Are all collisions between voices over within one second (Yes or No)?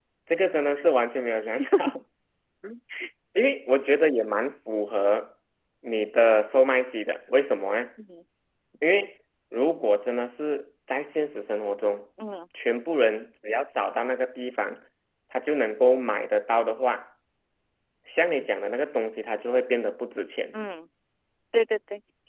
Yes